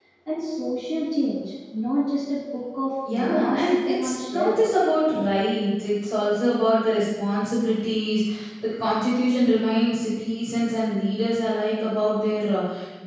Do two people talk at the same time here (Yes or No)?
Yes